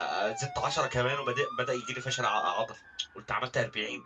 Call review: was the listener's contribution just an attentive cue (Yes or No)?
Yes